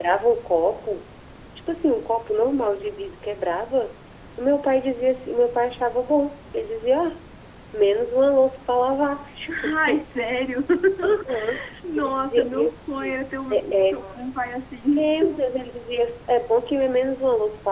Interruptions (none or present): present